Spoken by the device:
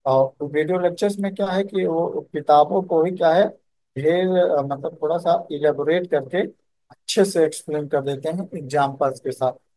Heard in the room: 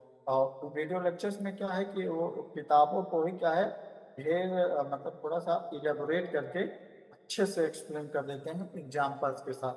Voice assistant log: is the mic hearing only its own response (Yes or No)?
Yes